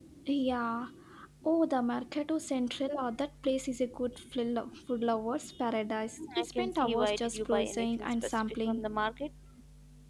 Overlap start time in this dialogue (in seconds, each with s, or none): 6.2 s